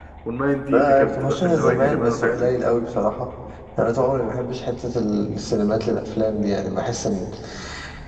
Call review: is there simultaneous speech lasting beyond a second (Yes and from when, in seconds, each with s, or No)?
Yes, from 0.7 s